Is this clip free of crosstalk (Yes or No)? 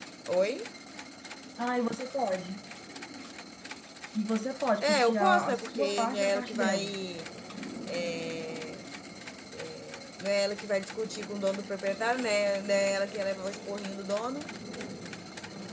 No